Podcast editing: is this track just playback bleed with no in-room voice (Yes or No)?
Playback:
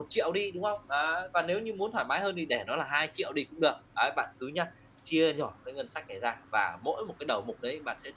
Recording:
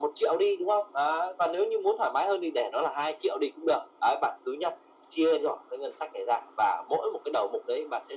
Yes